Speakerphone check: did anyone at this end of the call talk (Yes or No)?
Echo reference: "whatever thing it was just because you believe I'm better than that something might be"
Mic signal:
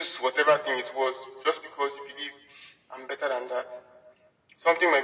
No